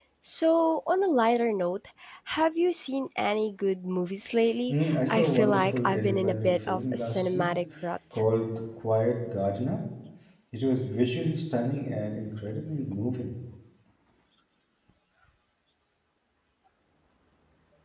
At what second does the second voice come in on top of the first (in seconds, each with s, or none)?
4.7 s